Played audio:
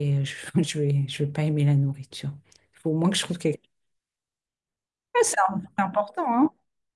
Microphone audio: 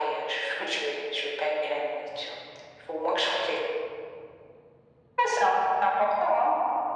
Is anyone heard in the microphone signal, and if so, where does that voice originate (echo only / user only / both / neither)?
echo only